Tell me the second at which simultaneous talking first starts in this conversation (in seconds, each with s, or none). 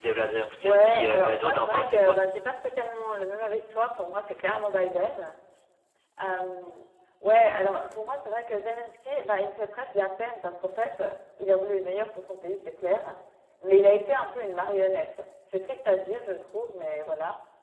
0.6 s